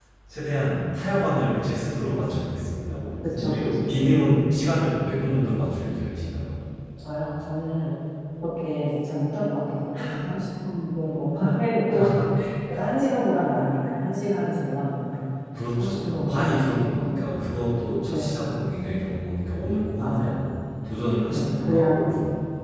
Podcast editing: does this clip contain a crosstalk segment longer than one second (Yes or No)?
Yes